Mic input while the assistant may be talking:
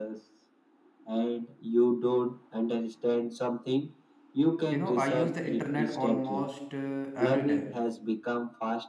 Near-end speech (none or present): present